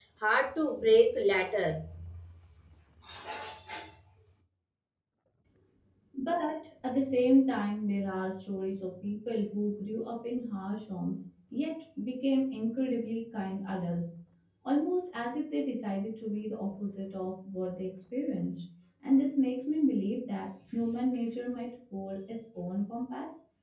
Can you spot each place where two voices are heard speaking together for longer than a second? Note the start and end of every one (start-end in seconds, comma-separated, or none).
none